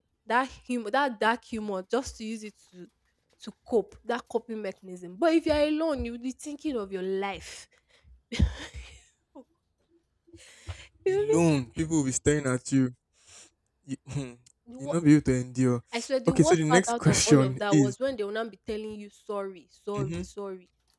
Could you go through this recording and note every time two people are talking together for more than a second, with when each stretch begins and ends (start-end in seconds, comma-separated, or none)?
16.3-17.9